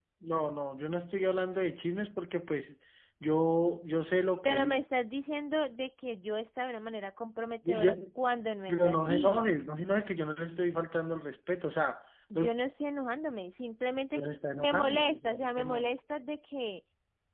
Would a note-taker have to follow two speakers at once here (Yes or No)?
Yes